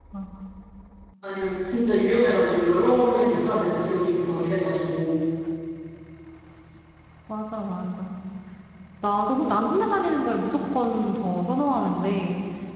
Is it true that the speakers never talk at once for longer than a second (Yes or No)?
Yes